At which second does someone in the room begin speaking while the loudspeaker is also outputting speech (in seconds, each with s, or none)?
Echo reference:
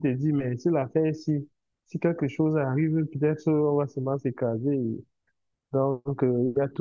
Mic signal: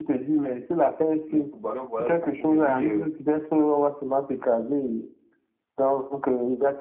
1.3 s